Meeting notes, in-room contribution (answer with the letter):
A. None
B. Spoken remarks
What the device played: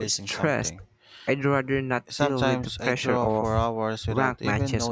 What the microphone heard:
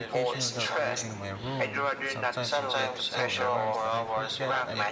B